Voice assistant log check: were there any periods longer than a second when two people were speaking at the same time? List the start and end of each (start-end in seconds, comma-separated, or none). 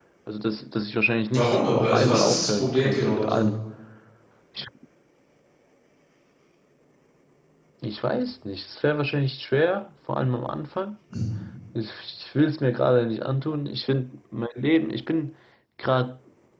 1.3-3.5